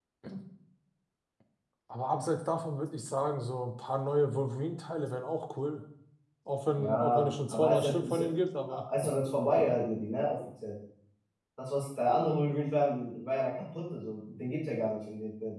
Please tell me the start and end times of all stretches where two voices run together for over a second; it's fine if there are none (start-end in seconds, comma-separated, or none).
6.8-8.2